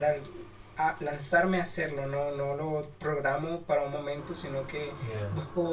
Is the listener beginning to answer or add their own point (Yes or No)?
No